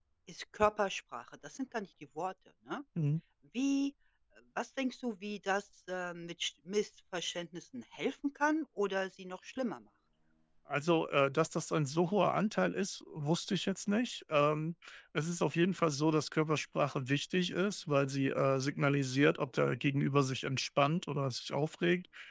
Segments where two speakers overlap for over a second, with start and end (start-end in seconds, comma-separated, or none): none